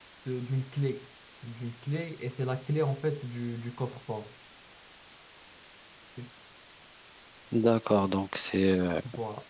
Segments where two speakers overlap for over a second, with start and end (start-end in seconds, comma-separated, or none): none